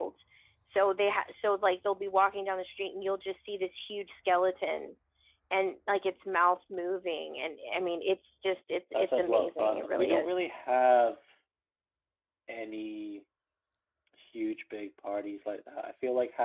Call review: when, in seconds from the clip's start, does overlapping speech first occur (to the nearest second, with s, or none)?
9 s